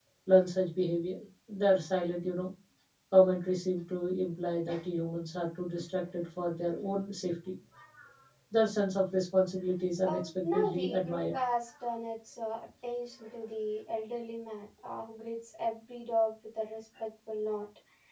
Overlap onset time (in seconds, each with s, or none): 10.0 s